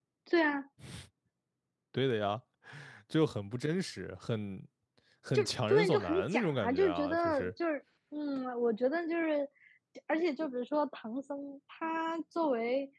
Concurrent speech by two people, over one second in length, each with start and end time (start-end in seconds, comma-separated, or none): 5.3-7.5